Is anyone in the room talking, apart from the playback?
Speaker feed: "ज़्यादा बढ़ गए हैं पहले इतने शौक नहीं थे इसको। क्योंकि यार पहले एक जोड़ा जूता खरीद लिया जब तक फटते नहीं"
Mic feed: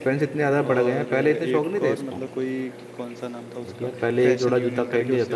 Yes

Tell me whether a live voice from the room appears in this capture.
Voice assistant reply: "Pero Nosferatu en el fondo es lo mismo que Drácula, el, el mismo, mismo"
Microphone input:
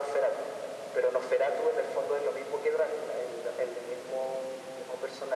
No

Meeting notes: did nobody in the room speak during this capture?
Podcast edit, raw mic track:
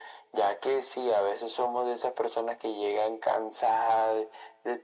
Yes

